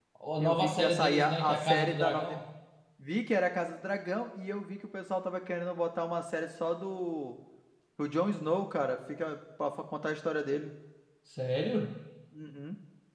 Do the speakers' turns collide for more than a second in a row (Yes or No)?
Yes